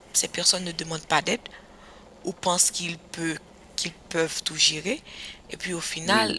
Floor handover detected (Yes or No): No